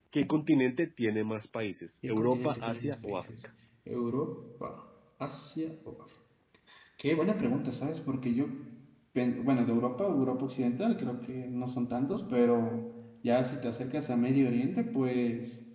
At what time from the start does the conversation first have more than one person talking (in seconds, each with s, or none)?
2.0 s